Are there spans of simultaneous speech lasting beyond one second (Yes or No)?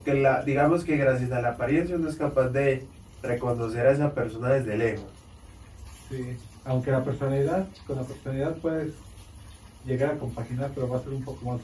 No